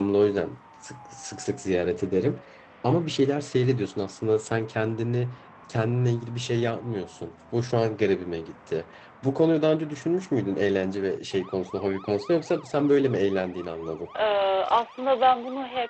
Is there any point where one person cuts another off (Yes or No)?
No